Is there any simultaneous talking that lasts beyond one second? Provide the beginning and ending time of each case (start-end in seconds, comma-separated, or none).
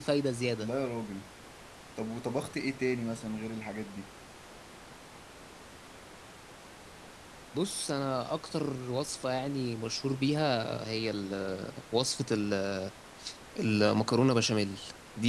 none